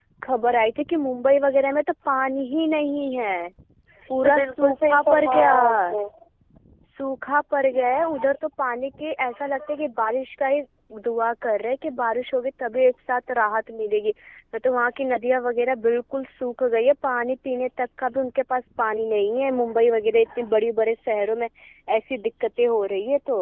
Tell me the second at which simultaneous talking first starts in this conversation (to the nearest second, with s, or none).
4 s